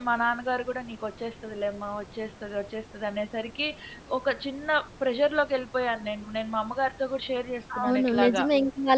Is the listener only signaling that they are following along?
No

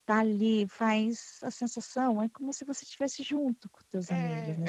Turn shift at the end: Yes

